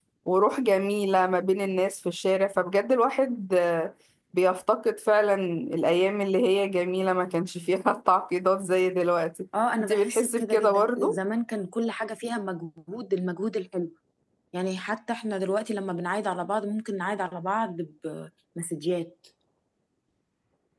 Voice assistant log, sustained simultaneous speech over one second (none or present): present